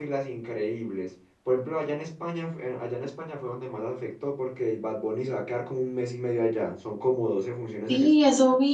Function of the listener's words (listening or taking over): taking over